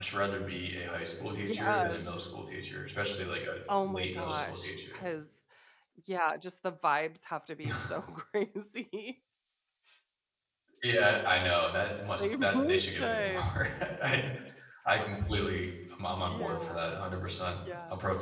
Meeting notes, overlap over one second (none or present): present